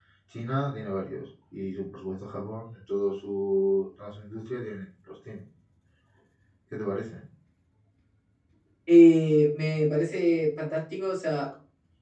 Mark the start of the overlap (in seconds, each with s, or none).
none